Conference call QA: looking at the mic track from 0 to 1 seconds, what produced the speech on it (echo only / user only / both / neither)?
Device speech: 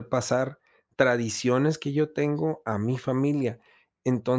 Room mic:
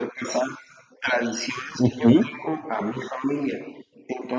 echo only